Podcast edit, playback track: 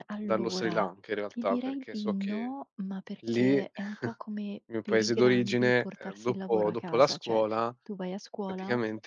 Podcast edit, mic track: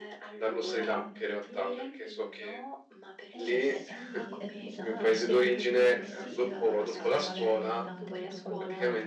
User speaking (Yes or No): Yes